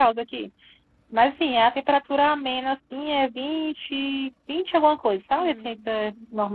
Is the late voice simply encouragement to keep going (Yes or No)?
Yes